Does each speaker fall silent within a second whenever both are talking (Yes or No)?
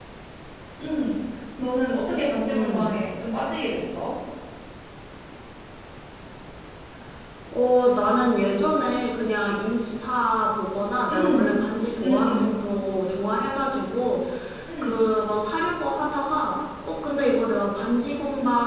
Yes